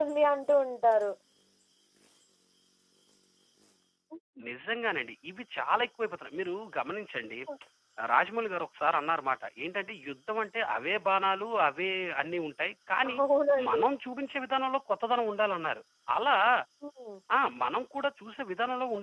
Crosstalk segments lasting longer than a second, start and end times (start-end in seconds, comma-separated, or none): none